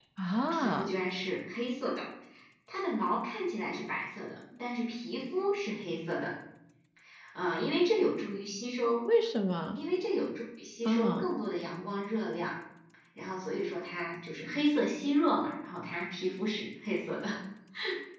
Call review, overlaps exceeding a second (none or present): none